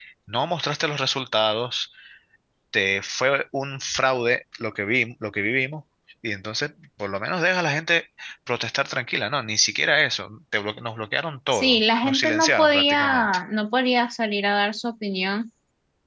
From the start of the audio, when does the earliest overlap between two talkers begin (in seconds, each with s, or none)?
11.5 s